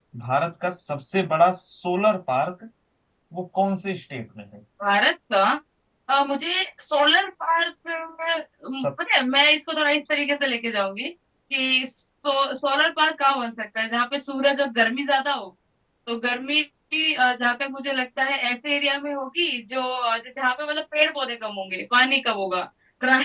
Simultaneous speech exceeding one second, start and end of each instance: none

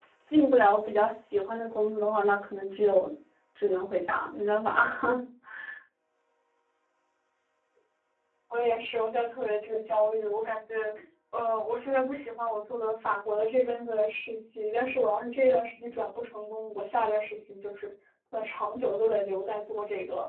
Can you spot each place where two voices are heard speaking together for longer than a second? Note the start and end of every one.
none

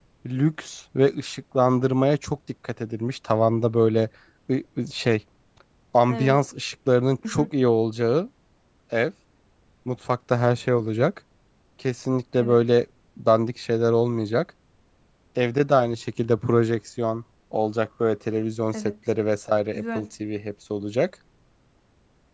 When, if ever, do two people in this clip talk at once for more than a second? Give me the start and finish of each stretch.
none

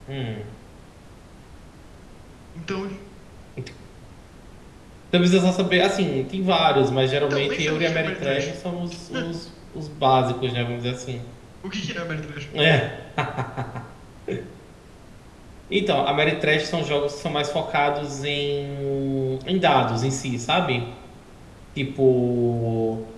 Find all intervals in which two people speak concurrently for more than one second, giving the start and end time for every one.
7.3-8.5

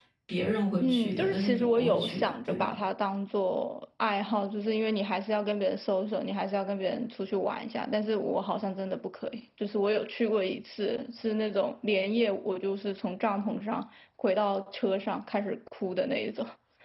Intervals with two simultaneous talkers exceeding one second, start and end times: 0.8-2.7

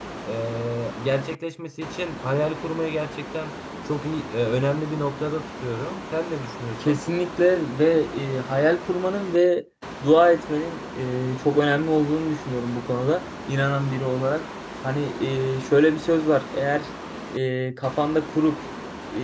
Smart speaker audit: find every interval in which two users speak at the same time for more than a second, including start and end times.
none

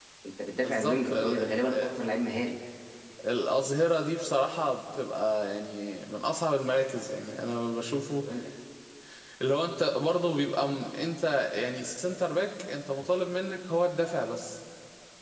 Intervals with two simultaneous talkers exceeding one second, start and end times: 0.6-1.9

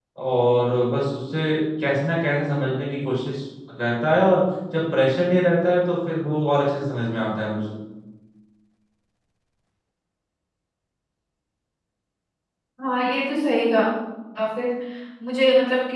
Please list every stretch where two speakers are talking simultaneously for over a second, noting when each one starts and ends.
none

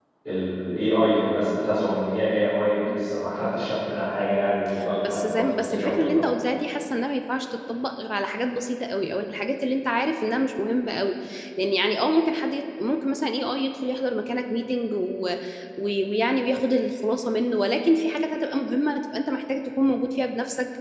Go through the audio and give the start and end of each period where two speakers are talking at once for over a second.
5.0-6.3

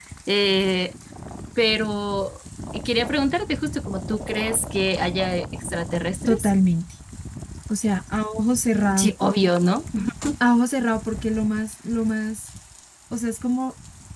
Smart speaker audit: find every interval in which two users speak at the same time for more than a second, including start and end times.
none

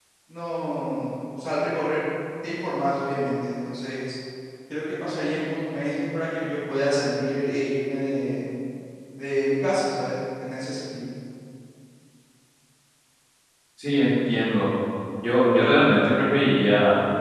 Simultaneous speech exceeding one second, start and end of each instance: none

